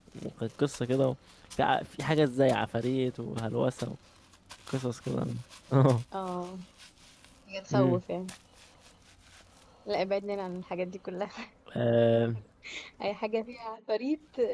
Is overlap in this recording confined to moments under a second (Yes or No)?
Yes